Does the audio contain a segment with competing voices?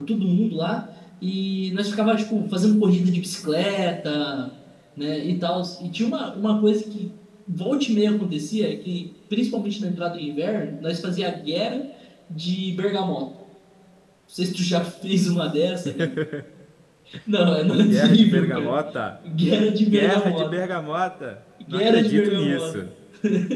Yes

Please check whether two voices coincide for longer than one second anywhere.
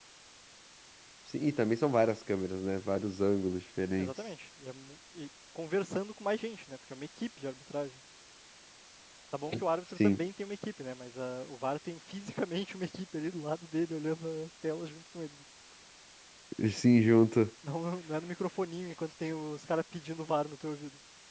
No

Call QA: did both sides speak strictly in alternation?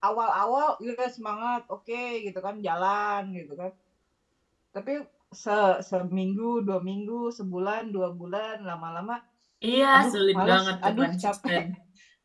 No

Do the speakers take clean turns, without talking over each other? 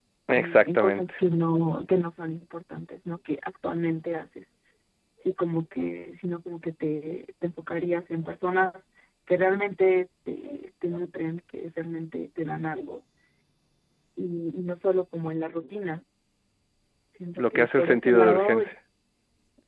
No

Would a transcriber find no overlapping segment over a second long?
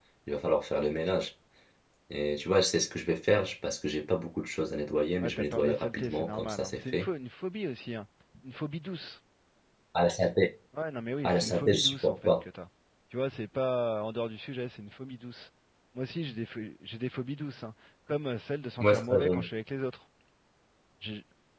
No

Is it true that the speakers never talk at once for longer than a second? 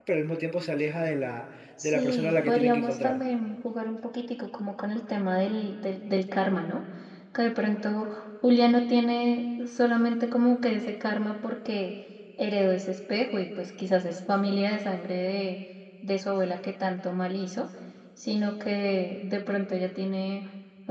No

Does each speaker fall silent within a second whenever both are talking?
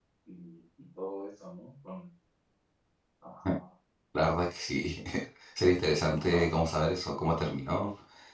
Yes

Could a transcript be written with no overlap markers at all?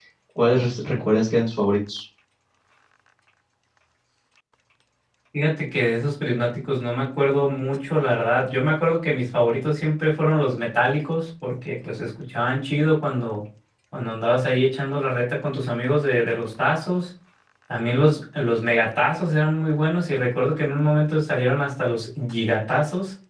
Yes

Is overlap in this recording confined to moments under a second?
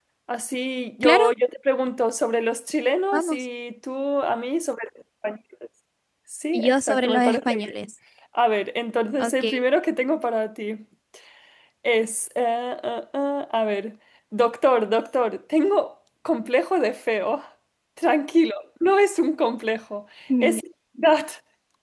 No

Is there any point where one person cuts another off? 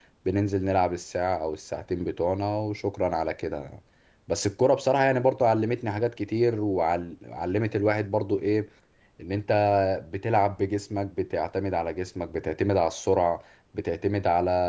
No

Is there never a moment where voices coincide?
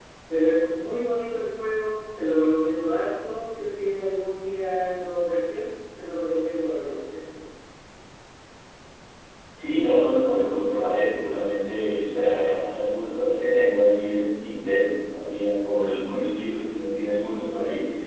Yes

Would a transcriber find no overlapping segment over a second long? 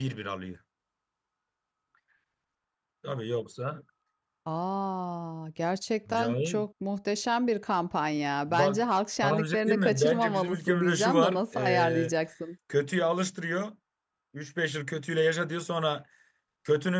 No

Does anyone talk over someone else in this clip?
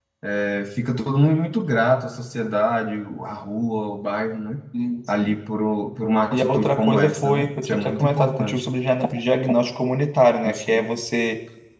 Yes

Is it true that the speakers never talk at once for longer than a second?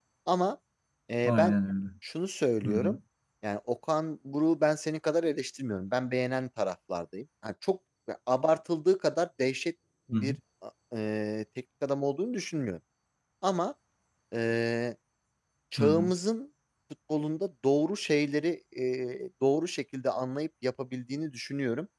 Yes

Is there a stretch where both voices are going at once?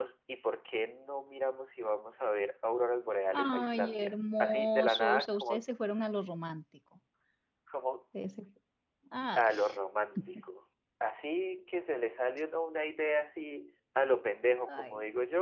Yes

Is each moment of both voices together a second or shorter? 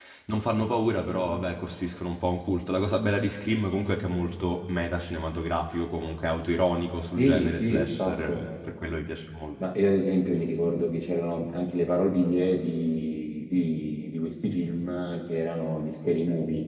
No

